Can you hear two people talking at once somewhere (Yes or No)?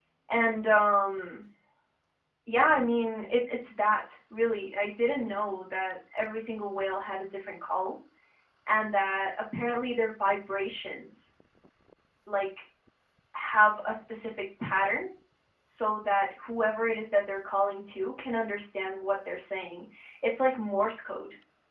No